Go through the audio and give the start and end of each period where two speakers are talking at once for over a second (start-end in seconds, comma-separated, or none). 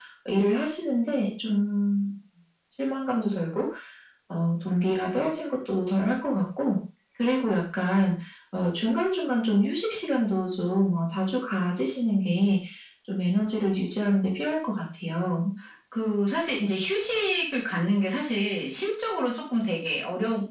none